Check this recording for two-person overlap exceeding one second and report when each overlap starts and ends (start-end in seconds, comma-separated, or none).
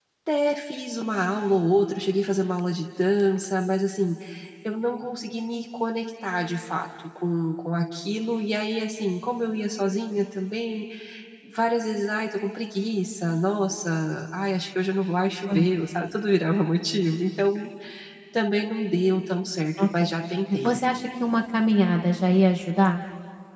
none